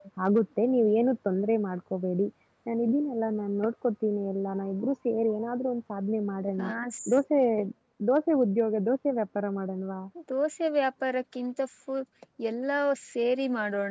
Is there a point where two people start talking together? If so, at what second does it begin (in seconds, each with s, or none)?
none